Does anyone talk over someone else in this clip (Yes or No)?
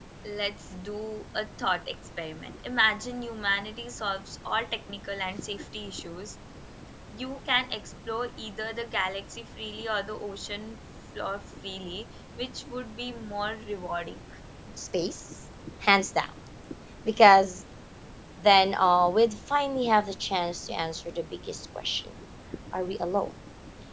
No